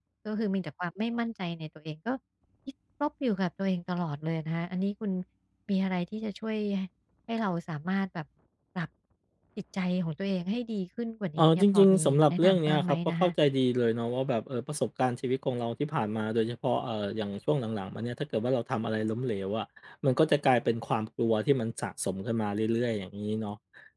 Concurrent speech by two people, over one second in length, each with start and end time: 11.4-13.3

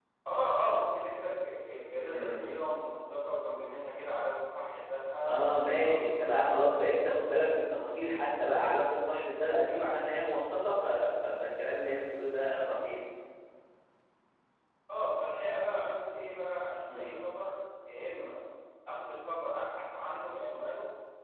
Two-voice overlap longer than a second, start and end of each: 5.3-7.1

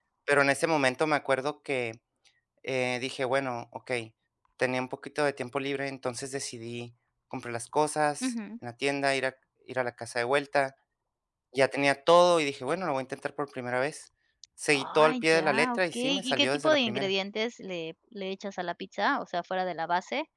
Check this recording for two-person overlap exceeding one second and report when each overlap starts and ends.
14.7-17.1

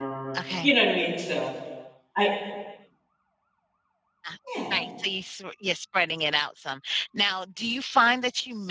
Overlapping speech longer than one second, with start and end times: none

